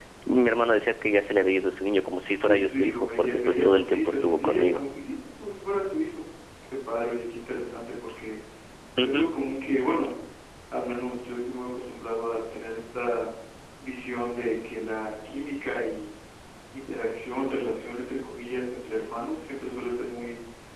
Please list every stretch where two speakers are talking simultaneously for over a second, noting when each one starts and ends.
2.4-4.8

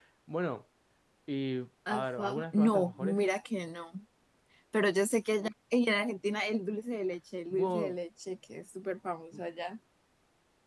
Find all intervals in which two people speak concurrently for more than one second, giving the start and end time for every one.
1.9-3.2

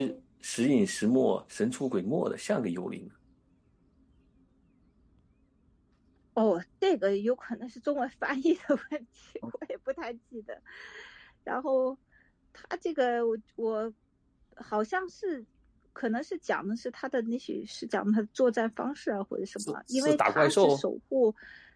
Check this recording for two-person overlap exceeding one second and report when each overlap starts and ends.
19.6-20.8

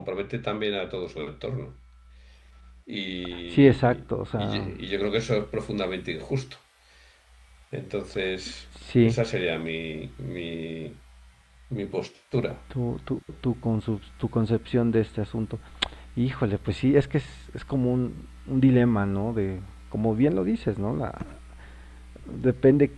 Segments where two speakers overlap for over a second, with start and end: 3.5-4.7

